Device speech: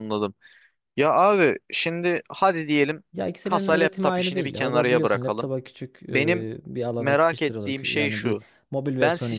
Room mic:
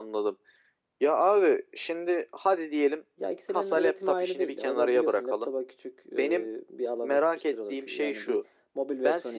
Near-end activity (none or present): none